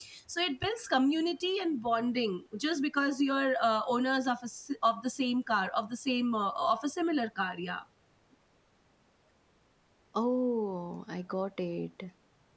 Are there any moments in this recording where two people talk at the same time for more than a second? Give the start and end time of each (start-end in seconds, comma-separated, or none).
none